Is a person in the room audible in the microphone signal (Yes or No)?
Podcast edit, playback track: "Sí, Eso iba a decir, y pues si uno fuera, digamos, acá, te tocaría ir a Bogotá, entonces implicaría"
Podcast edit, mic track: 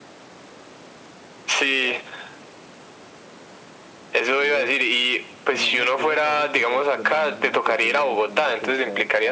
Yes